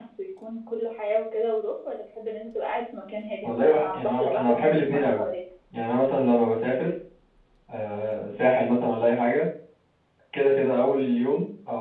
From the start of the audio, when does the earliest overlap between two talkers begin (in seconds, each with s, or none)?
3.4 s